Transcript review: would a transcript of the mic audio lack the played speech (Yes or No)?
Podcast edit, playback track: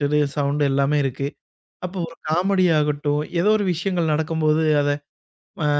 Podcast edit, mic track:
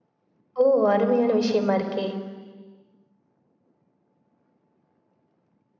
Yes